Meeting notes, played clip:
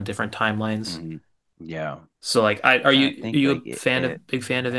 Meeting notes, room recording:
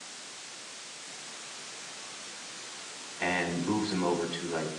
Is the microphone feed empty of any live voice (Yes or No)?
No